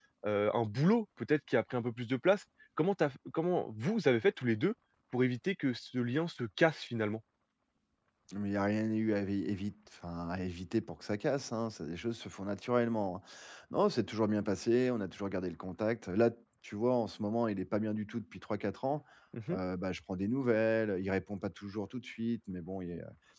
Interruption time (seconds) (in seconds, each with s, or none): none